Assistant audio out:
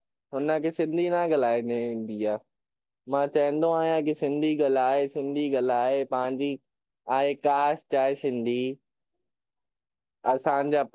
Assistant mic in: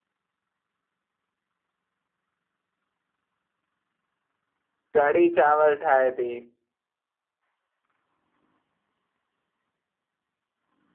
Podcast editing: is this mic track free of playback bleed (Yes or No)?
Yes